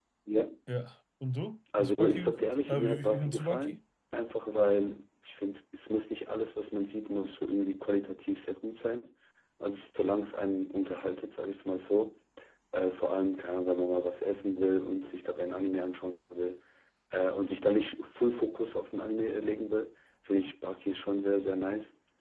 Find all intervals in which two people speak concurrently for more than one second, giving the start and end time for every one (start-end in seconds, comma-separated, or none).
1.8-3.8